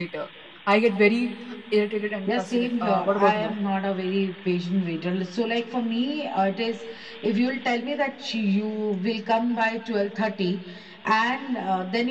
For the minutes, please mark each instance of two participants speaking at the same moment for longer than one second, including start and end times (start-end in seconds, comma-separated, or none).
2.3-3.5